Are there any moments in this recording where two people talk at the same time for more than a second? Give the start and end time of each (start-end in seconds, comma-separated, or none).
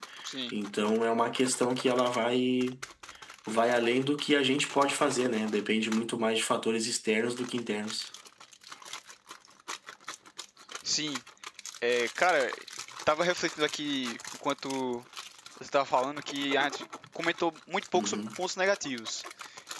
none